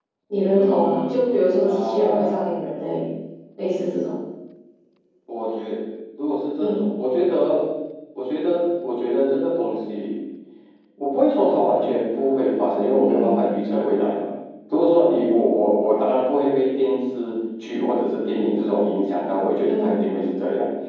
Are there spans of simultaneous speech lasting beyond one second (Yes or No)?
Yes